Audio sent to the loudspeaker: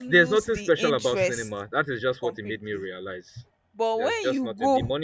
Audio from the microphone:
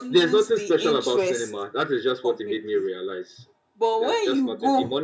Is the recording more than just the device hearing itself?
No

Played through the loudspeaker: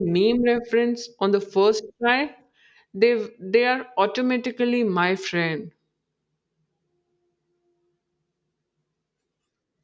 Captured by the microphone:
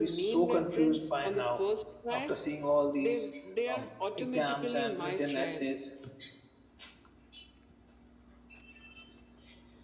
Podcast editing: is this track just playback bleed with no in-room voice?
No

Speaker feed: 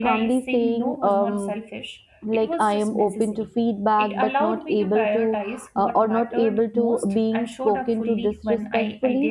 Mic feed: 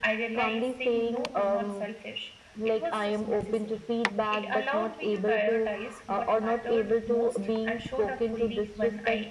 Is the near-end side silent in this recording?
Yes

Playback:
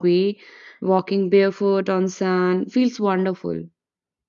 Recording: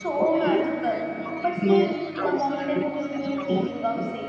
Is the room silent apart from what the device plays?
No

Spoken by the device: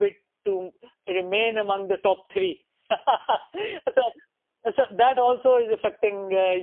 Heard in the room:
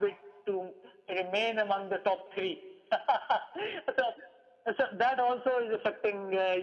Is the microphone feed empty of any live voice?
Yes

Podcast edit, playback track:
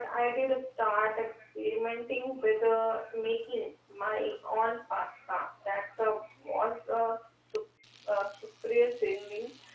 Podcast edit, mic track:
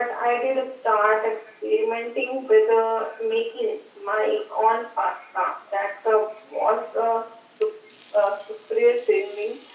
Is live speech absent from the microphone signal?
Yes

